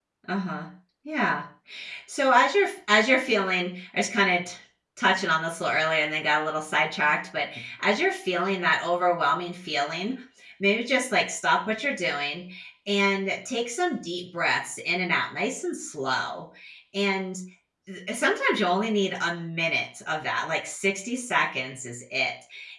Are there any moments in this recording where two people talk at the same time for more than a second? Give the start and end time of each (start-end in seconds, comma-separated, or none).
none